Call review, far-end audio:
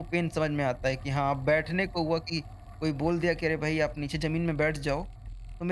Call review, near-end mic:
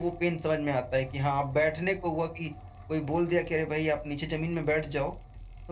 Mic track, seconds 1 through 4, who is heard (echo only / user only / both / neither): echo only